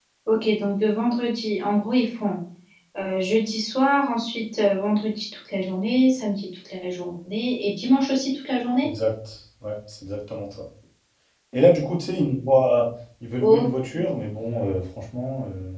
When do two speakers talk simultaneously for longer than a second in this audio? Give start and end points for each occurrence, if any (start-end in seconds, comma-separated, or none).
none